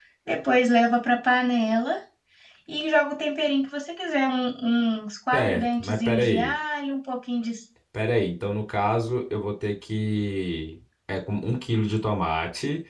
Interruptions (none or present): present